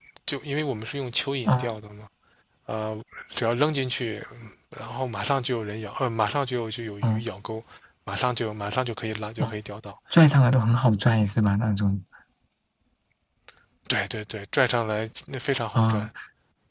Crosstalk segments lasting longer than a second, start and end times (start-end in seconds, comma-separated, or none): none